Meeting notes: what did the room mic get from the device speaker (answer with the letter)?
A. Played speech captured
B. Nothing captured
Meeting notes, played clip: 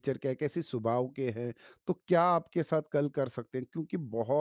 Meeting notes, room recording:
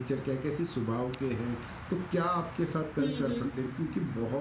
A